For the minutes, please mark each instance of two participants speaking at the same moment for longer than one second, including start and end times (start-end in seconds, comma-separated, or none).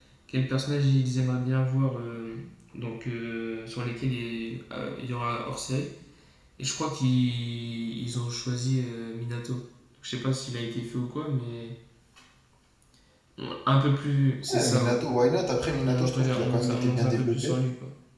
15.8-17.5